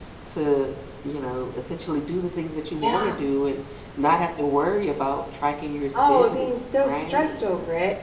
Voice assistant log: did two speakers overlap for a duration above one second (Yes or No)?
Yes